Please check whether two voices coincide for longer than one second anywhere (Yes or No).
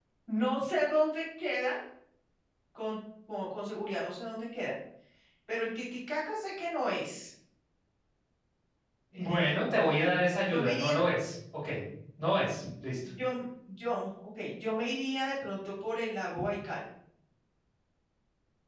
No